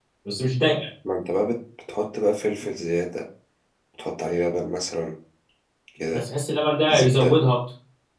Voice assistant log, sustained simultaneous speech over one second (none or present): none